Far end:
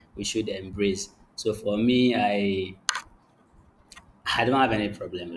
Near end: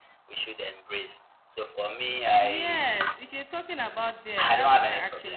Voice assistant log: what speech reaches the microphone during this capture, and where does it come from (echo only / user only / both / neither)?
both